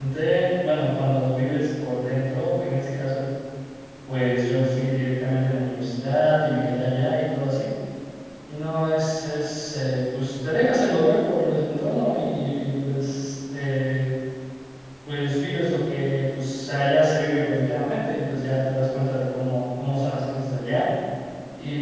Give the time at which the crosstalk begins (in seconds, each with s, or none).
none